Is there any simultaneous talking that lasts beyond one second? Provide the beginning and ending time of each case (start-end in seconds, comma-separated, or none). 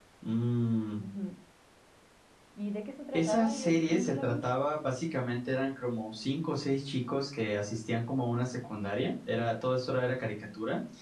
3.1-4.5